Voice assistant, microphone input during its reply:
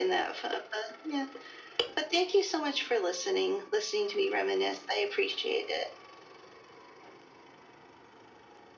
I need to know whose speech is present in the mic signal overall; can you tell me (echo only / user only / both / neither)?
echo only